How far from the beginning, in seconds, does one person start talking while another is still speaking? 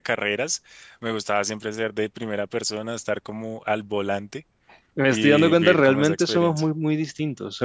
5.1 s

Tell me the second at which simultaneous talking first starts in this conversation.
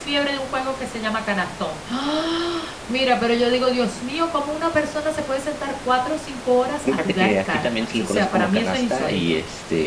6.8 s

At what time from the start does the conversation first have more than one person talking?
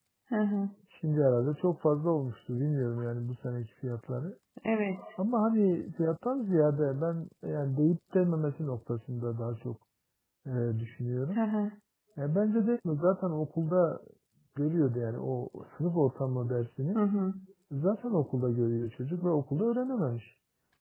none

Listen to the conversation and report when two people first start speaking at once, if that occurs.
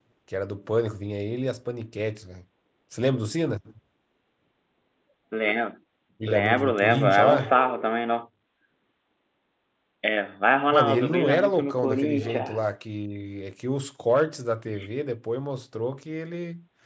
6.3 s

